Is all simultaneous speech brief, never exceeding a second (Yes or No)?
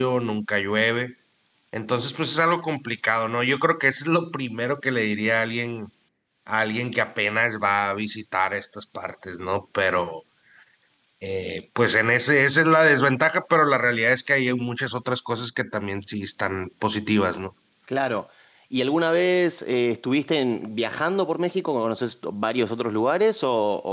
Yes